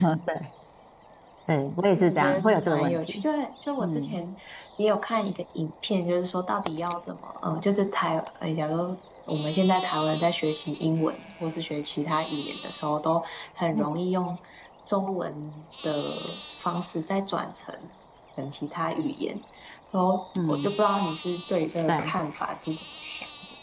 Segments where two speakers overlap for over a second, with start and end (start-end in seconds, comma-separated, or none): 1.9-3.2